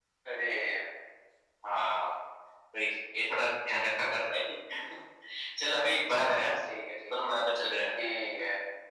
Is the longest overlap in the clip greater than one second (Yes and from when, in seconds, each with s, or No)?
No